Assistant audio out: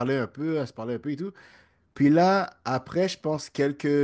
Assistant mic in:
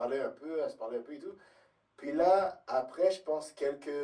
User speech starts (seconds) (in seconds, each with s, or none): none